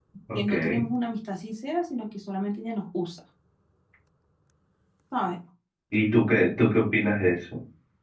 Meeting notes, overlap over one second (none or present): none